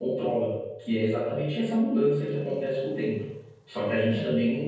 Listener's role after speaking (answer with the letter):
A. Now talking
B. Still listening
B